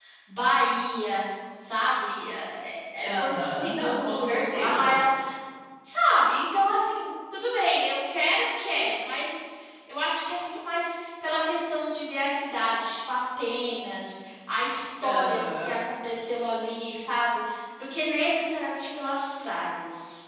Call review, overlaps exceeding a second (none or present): present